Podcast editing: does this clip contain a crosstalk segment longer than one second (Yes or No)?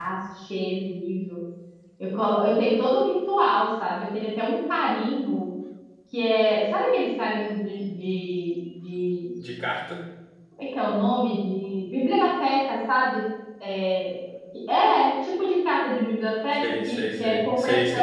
Yes